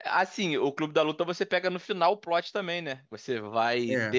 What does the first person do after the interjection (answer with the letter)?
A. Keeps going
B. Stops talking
A